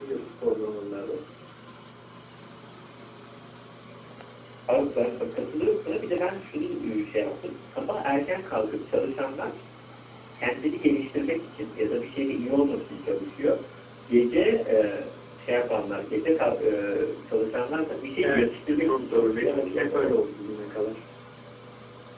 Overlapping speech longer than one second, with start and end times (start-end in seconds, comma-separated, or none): 18.2-20.1